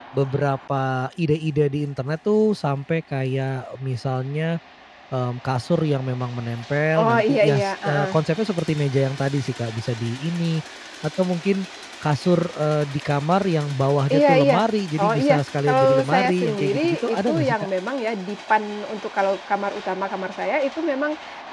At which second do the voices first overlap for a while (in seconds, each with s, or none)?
7.0 s